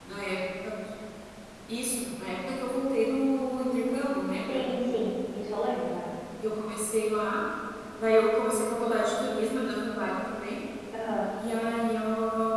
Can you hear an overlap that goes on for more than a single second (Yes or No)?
No